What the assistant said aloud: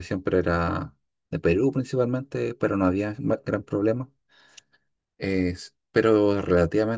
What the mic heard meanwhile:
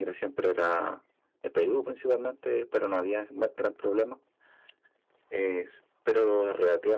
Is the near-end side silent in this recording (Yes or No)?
Yes